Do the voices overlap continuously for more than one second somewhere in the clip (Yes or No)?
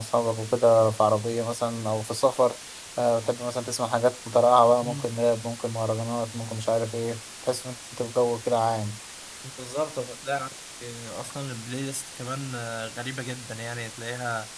No